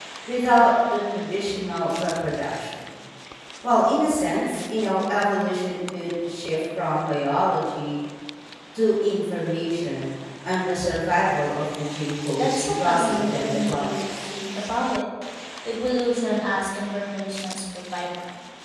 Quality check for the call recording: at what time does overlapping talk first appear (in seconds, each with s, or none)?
12.4 s